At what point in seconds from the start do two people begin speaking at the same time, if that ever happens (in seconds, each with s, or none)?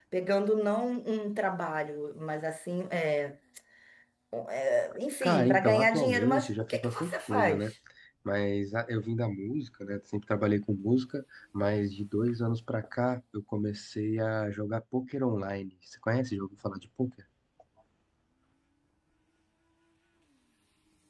5.2 s